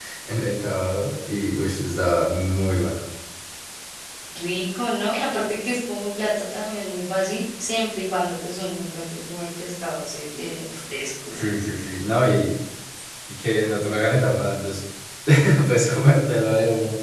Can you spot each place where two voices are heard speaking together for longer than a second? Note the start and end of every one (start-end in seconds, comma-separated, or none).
none